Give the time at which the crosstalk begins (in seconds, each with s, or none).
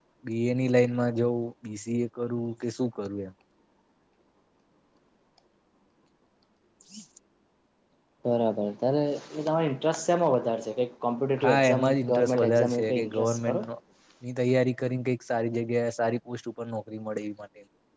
11.4 s